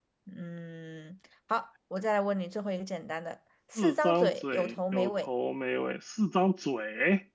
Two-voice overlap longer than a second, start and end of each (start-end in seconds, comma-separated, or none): 3.8-5.3